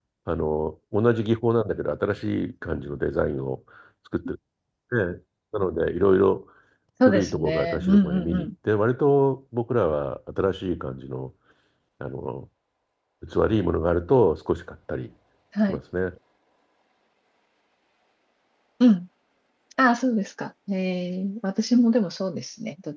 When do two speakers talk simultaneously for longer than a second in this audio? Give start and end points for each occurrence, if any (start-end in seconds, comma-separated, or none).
7.1-8.5